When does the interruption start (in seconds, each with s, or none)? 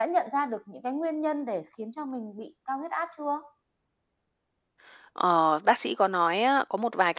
none